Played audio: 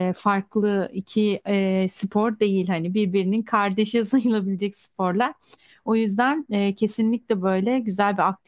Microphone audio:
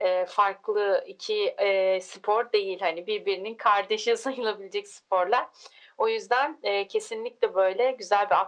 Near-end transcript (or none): none